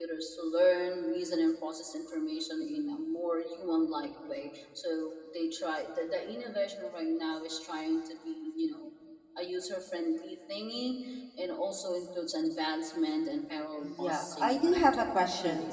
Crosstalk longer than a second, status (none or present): present